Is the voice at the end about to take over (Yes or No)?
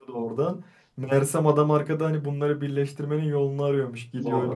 No